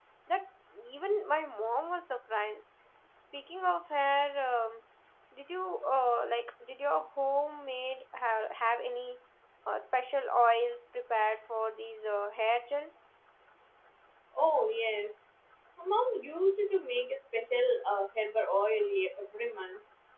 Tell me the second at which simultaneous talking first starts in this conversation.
none

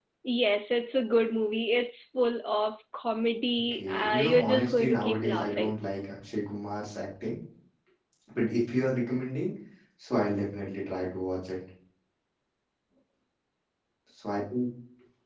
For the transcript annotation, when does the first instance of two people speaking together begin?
3.7 s

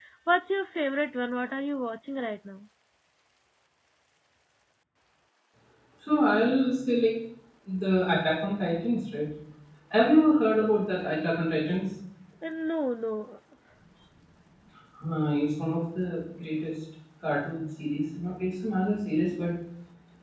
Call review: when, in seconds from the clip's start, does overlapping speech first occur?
none

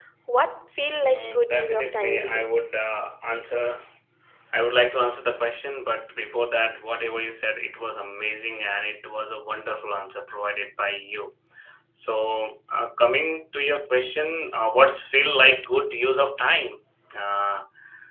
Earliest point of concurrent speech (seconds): 1.0 s

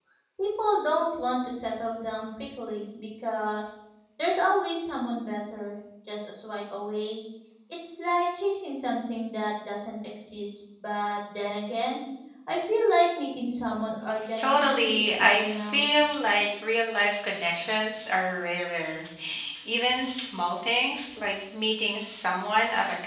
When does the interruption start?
14.4 s

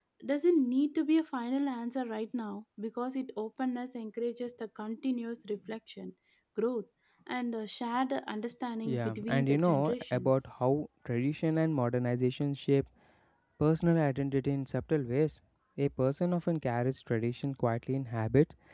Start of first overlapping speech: 8.8 s

